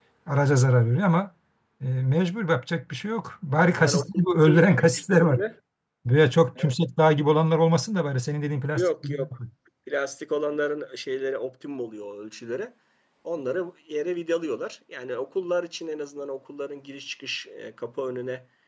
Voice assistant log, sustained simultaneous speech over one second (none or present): present